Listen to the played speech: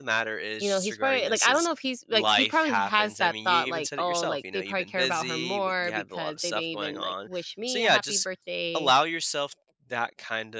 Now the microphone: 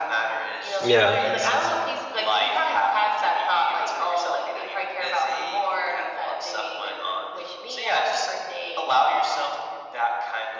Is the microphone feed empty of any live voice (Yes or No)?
No